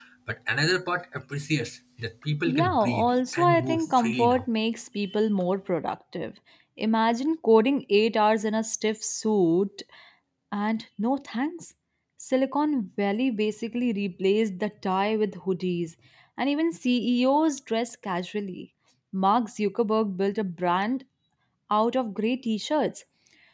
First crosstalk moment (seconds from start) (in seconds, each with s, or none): 2.5 s